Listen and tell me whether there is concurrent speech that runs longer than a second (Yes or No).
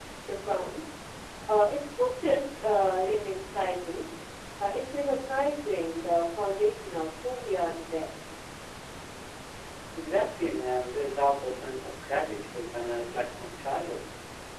No